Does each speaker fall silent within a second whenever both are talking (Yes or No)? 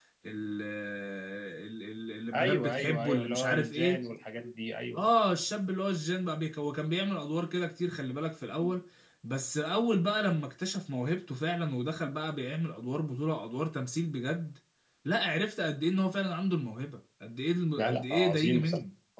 No